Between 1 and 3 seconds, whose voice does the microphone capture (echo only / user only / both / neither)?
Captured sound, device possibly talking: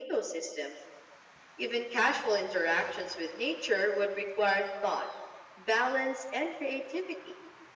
echo only